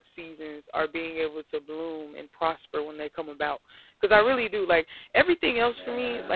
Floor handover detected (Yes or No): No